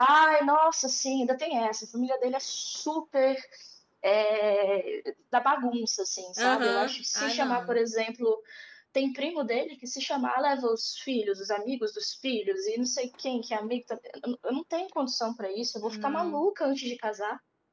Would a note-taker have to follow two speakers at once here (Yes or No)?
Yes